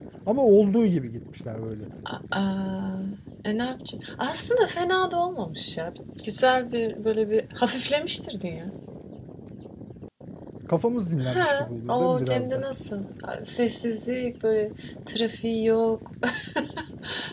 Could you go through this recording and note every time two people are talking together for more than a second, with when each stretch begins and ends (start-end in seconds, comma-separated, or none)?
11.2-12.6